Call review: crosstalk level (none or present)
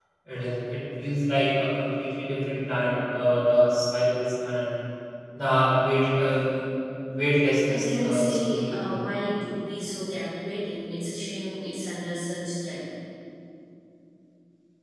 present